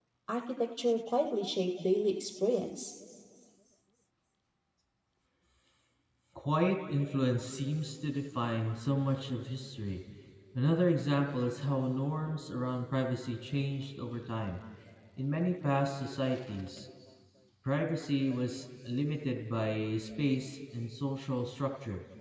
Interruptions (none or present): none